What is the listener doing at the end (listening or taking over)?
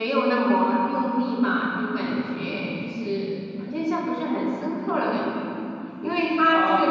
listening